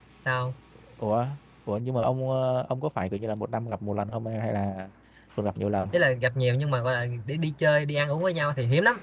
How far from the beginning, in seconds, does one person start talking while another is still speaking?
none

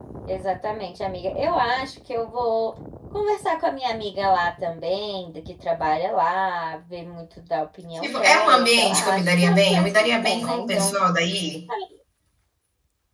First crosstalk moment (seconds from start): 8 s

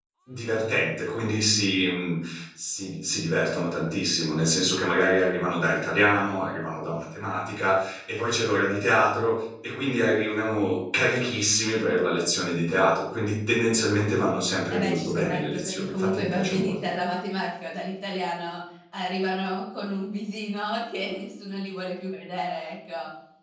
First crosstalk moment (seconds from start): 15 s

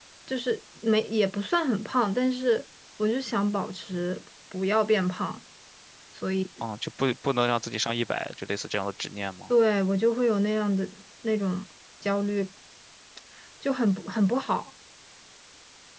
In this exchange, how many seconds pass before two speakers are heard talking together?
none

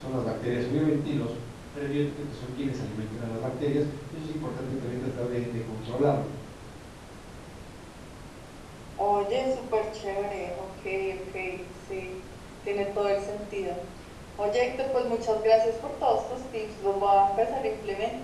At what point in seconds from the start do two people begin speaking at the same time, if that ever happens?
none

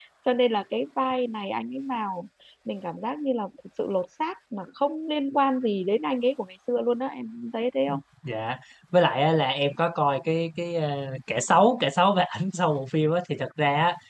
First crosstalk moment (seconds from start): none

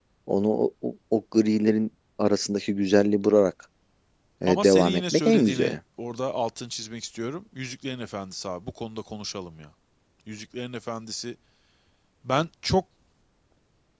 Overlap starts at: 4 s

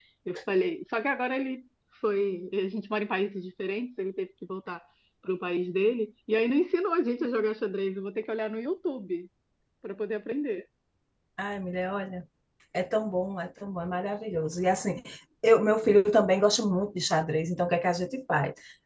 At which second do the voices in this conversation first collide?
none

